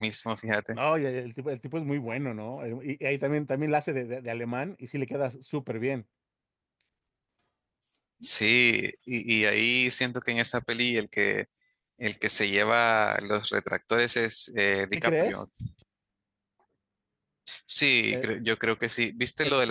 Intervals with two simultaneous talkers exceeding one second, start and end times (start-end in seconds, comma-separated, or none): none